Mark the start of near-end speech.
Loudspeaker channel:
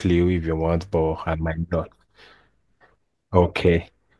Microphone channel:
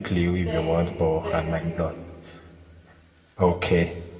0.4 s

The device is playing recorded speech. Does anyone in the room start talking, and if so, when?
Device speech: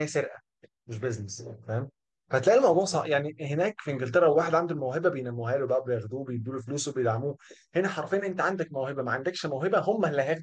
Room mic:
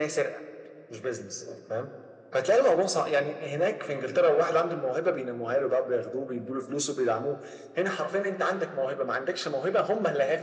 none

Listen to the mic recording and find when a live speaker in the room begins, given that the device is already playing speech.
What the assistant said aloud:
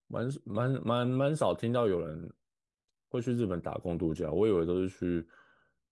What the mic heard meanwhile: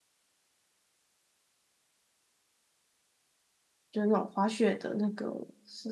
3.9 s

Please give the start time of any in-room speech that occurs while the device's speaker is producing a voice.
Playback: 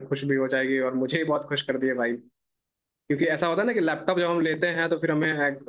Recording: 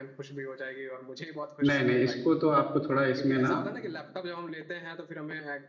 1.7 s

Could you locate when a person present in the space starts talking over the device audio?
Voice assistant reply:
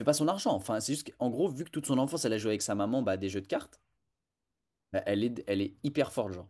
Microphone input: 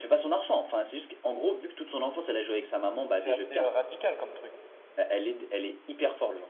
3.1 s

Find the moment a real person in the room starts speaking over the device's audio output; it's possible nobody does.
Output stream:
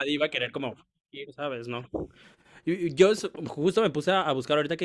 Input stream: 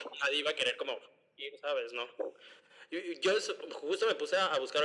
none

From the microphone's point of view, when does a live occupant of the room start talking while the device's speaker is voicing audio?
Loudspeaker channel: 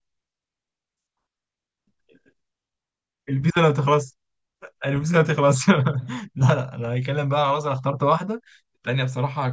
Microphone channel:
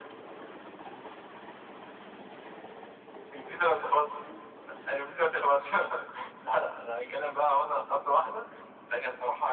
none

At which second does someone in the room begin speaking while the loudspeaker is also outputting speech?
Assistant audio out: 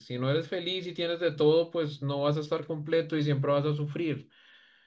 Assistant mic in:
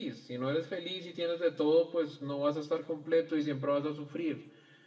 none

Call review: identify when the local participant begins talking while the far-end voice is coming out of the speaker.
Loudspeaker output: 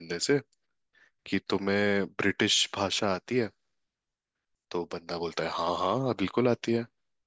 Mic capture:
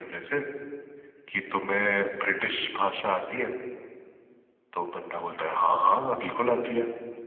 none

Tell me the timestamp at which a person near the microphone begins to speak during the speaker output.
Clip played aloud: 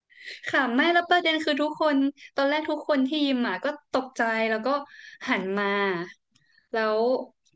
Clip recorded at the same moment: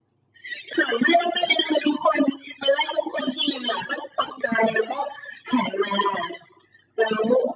none

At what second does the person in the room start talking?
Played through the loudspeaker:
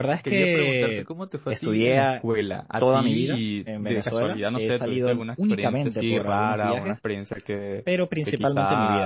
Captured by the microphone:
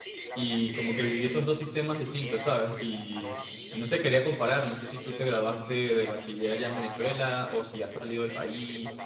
0.3 s

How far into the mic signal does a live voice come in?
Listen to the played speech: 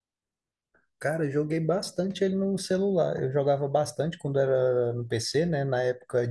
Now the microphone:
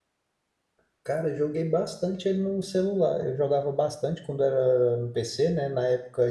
none

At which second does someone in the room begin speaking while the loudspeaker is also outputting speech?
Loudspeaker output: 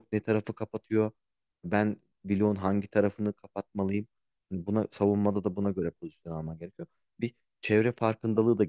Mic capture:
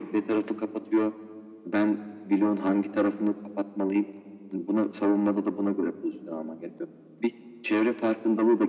none

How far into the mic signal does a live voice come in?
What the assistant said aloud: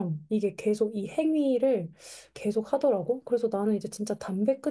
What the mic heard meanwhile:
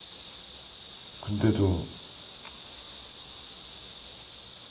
1.2 s

